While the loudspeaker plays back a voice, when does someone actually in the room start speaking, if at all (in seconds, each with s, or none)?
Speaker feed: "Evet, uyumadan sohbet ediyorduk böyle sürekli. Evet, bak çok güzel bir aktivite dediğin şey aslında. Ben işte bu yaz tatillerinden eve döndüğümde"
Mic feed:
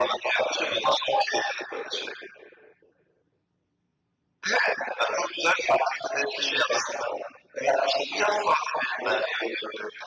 none